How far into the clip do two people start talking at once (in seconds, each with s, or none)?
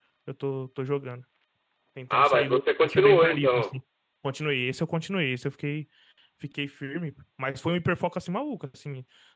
2.1 s